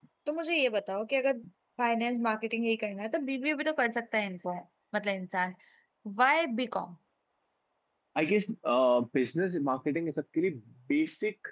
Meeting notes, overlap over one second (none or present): none